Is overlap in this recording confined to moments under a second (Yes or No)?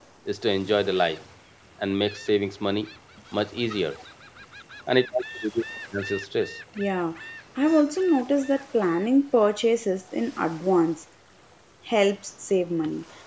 Yes